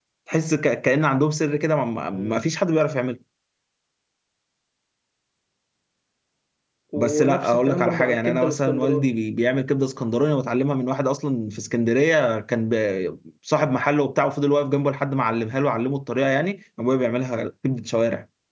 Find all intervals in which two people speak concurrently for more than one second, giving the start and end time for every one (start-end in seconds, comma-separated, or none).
7.0-9.1